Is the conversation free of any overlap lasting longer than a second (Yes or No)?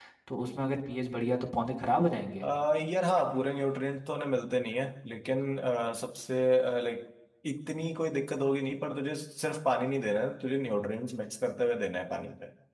Yes